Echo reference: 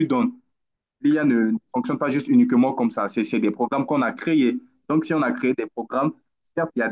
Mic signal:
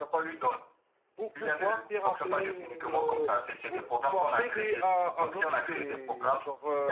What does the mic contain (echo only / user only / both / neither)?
both